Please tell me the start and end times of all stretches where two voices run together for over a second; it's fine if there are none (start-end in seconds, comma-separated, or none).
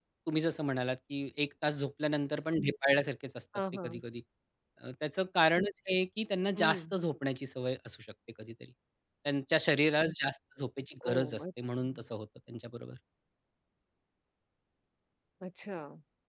none